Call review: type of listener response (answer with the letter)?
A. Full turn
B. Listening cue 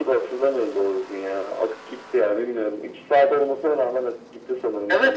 A